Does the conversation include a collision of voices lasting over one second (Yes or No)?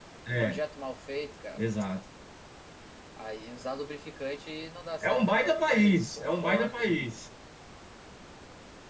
Yes